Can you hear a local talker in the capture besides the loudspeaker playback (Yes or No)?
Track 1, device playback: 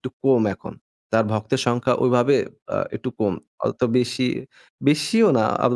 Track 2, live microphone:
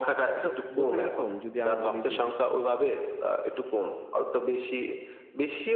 Yes